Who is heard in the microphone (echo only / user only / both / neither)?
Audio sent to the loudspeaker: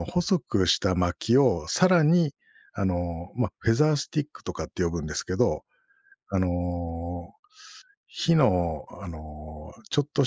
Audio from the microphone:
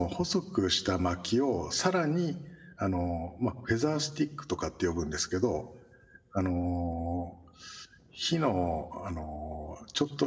echo only